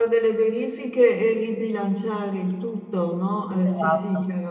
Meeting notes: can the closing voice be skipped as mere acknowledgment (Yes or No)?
No